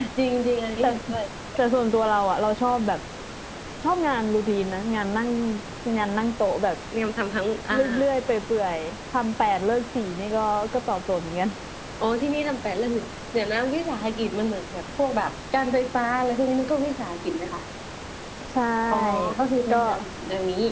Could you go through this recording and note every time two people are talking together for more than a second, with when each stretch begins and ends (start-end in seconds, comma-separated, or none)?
none